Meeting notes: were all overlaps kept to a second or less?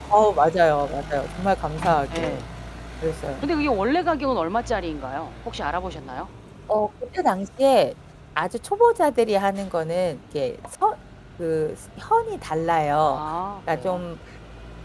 Yes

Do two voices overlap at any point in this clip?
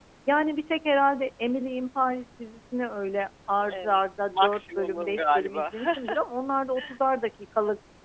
Yes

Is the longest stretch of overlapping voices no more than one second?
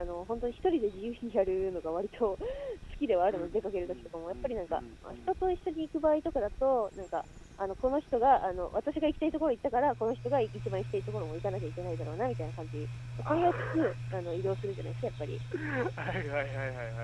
No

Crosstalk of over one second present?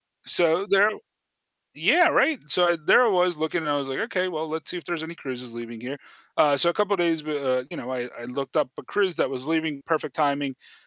No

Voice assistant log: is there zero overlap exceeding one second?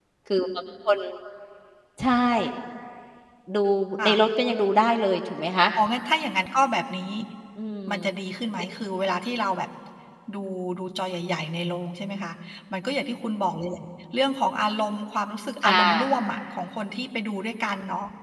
Yes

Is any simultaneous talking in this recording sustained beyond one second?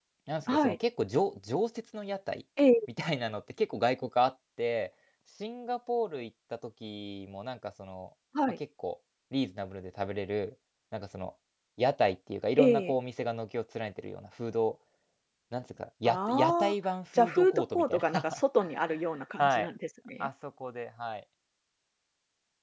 Yes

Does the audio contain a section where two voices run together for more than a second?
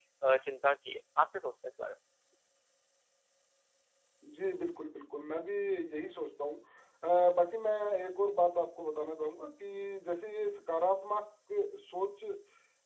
No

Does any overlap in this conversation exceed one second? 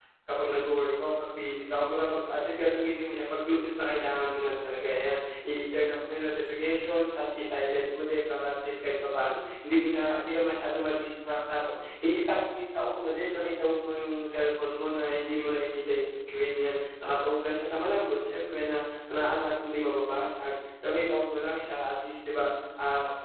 No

